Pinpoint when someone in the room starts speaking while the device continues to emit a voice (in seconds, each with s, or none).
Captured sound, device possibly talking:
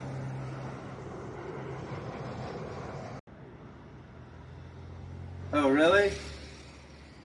5.5 s